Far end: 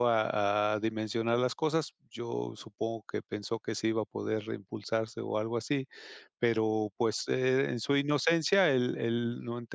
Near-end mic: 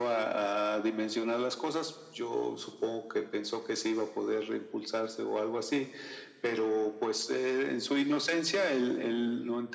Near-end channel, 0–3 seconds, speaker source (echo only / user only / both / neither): echo only